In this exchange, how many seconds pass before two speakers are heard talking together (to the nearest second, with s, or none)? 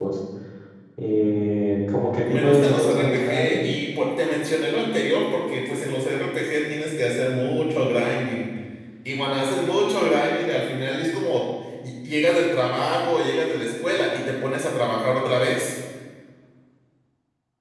2 s